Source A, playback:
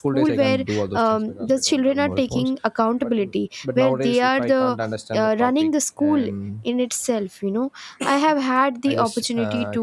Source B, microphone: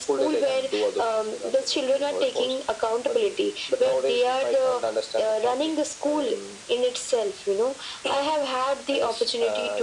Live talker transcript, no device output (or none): none